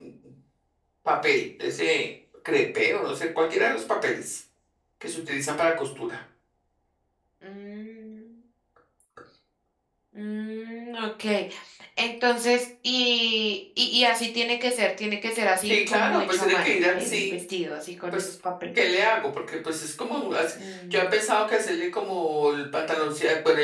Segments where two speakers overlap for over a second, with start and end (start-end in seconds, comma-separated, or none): 15.6-17.3